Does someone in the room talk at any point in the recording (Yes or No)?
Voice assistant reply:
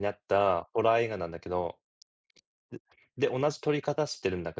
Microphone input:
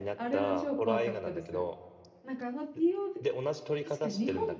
Yes